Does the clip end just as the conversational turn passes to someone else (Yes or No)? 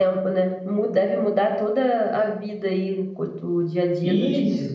Yes